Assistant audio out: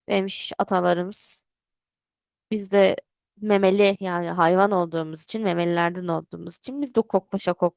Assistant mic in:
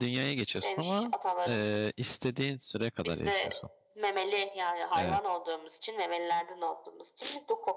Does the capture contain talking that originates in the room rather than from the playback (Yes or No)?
Yes